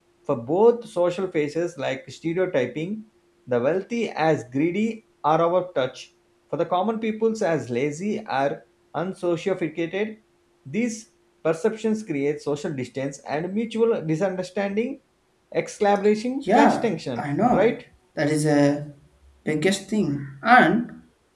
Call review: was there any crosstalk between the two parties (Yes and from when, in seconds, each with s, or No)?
Yes, from 16.4 s